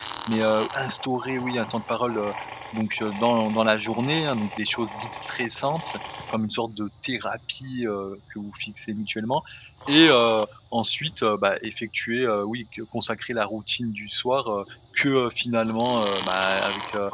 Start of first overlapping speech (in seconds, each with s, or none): none